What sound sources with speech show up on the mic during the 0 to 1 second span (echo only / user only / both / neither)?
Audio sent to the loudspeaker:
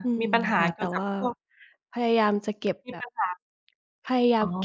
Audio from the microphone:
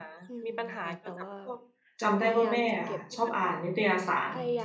echo only